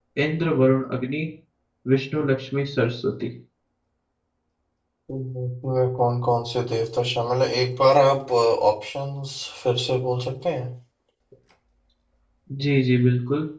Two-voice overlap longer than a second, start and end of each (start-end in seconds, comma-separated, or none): none